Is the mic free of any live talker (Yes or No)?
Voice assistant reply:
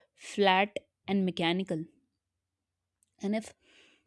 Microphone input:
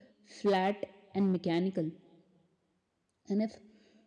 Yes